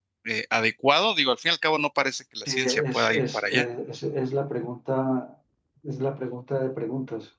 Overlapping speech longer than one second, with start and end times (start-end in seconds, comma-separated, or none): 2.5-3.7